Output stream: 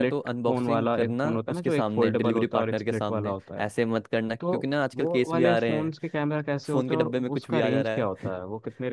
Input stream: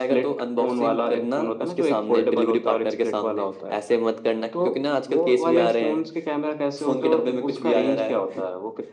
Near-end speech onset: none

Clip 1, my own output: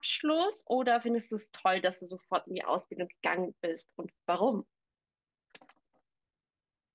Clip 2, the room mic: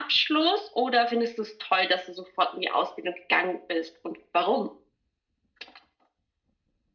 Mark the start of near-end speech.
none

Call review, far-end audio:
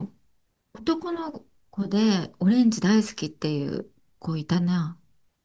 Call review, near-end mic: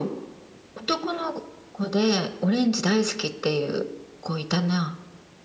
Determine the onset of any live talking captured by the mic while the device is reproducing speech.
none

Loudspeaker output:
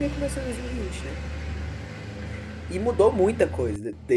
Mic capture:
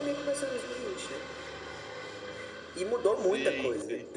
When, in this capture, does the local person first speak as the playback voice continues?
3.1 s

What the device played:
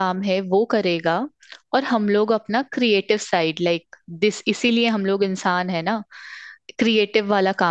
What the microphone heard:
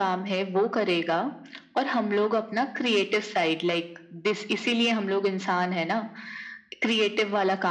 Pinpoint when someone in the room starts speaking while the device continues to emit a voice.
none

